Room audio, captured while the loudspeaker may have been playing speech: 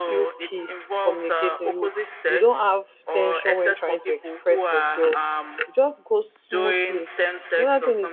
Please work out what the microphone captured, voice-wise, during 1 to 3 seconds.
both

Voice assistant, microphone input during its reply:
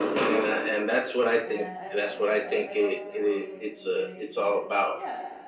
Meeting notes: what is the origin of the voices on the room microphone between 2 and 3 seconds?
both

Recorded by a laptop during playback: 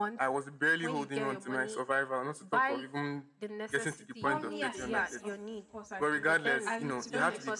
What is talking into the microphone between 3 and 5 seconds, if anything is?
both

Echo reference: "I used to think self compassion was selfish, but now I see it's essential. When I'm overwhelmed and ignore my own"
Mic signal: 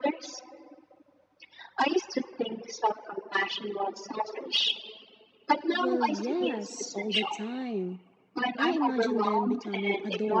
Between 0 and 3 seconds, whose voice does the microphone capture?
echo only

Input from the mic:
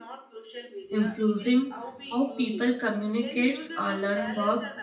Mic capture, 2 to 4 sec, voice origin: both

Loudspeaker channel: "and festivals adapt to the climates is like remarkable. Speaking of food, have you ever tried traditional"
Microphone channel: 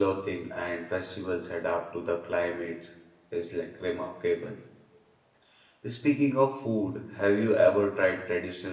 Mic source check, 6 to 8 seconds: echo only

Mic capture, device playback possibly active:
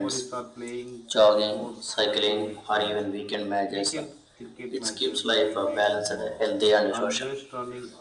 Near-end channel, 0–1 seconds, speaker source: both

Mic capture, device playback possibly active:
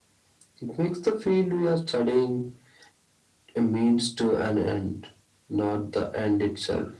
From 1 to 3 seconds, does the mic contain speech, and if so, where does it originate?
echo only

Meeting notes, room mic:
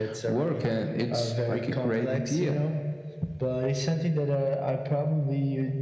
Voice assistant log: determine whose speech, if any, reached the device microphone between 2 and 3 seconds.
echo only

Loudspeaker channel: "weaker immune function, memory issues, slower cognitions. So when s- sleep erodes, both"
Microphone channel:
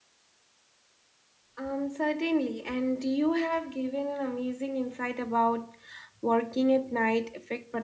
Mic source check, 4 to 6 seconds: user only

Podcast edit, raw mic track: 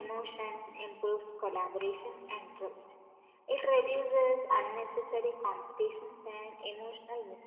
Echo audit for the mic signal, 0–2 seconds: echo only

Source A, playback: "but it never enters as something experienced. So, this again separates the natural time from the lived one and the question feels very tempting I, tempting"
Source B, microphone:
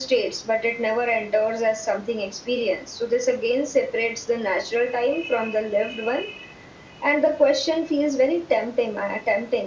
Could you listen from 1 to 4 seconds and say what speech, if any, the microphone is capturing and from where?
echo only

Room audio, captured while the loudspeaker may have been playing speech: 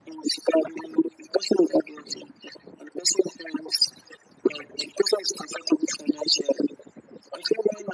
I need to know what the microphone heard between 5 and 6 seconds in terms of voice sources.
echo only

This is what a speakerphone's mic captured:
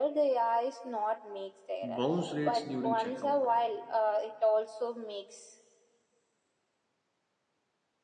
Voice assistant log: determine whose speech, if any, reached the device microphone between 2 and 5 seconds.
both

